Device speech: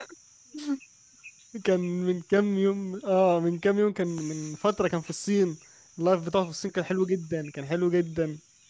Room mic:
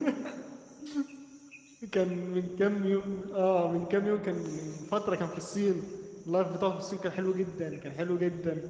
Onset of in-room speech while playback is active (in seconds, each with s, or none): none